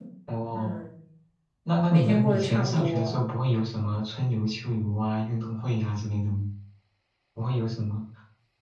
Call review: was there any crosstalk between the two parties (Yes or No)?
Yes